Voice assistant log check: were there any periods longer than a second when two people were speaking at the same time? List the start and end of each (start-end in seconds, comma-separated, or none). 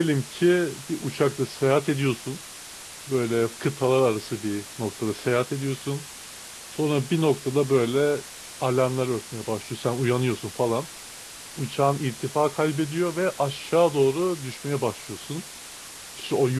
none